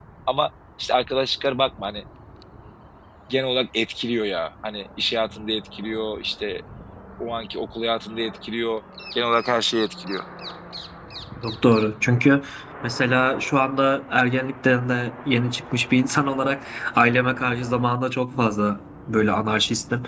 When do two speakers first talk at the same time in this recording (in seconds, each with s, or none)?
none